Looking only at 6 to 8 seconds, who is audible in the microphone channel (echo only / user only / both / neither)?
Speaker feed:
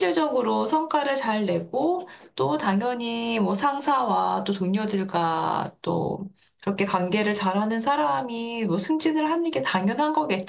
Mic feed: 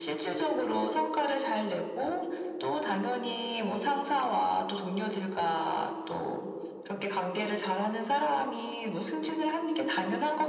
echo only